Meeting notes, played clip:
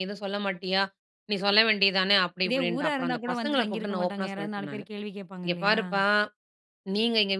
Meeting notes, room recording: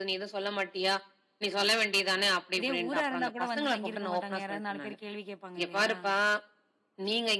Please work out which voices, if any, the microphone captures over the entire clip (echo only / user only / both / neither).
echo only